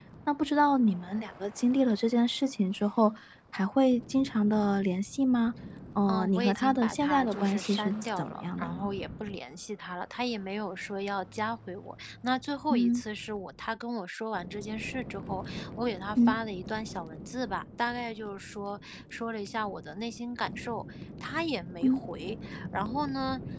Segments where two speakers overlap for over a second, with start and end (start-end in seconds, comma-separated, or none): 6.1-8.8